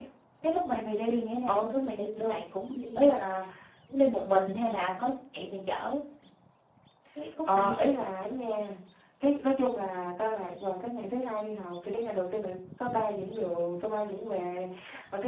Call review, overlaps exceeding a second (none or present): none